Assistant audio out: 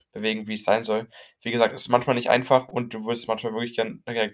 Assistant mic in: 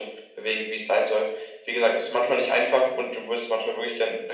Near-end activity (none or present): none